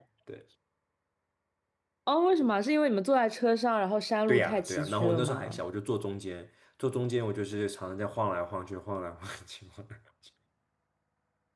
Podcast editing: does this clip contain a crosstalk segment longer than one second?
Yes, from 4.3 s

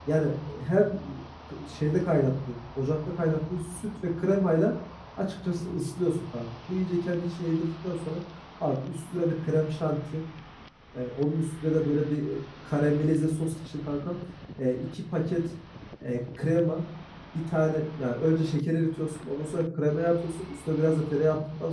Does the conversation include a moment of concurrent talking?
No

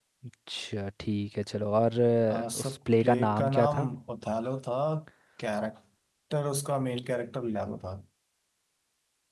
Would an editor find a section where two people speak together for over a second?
Yes, from 2.3 s

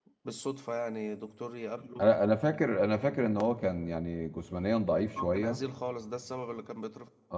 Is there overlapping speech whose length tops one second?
No

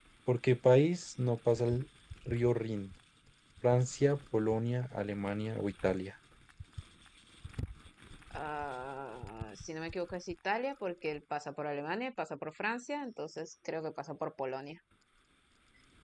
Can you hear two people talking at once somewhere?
No

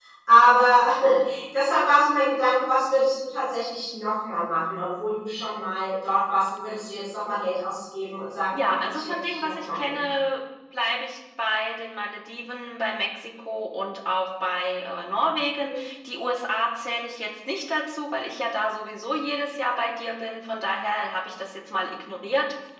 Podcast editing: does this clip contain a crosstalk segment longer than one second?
Yes, from 8.5 s

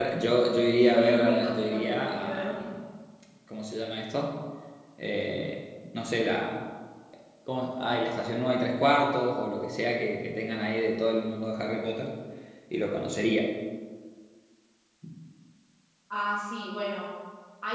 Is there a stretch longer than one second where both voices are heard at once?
Yes, from 0.8 s

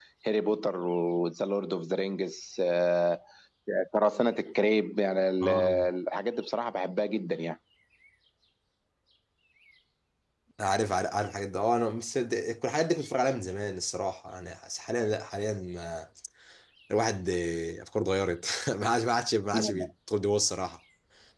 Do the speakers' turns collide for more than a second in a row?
No

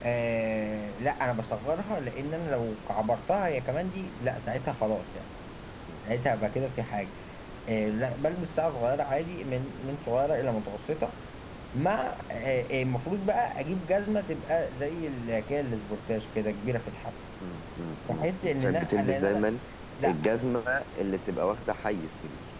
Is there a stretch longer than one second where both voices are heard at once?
Yes, from 18.1 s

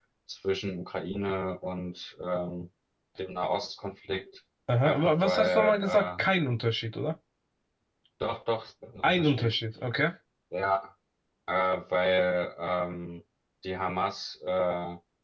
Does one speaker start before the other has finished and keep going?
Yes, from 4.8 s

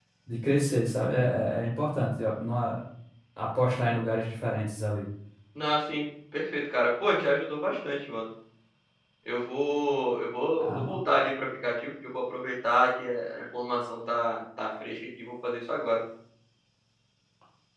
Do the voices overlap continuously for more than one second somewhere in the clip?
No

